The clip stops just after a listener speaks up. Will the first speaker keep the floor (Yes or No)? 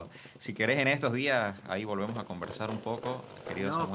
Yes